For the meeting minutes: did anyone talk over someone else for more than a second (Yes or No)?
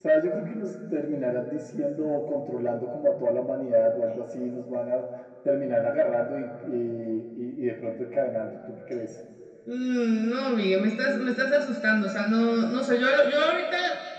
No